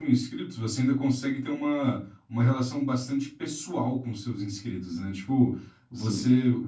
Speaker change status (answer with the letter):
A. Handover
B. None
B